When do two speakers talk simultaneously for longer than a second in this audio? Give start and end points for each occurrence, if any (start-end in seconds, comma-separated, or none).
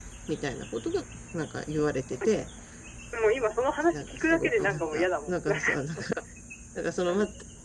3.9-5.6